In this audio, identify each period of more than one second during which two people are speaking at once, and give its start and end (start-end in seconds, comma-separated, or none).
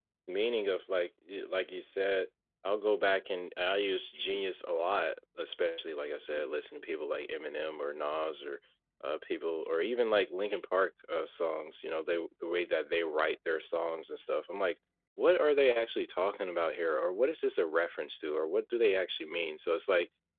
none